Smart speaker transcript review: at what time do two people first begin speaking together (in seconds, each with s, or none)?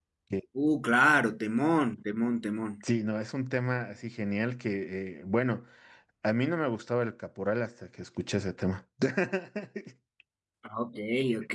none